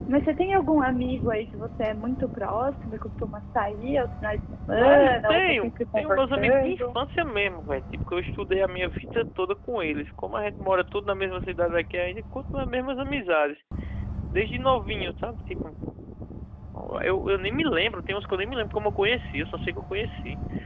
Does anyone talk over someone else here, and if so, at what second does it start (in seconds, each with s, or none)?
4.7 s